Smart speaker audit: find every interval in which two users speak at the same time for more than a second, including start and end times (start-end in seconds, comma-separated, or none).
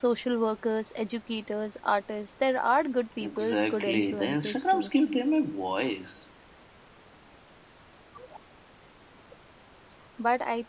3.2-4.9